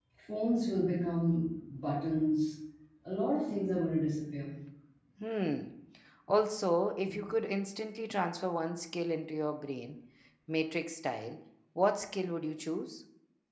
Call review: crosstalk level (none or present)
none